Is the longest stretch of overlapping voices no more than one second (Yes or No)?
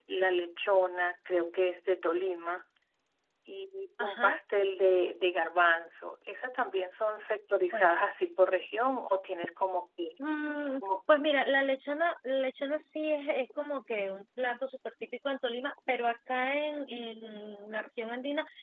Yes